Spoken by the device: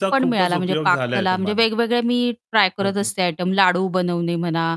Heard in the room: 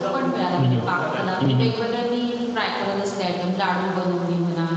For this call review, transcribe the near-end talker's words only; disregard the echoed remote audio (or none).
हं, हं. हं, हं.